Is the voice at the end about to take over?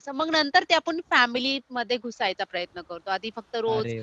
No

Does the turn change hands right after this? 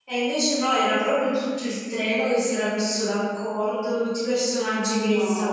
No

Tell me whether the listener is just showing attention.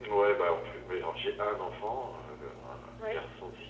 Yes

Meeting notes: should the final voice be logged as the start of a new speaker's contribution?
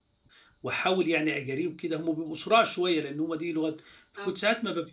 No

